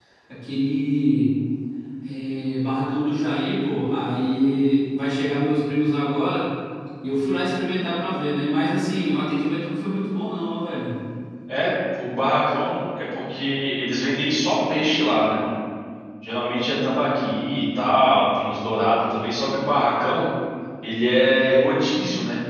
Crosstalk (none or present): none